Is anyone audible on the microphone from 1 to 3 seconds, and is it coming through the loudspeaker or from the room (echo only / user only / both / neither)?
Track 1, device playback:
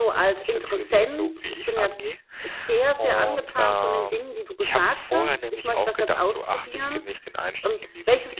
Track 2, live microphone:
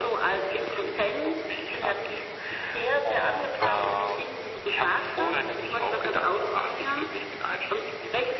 echo only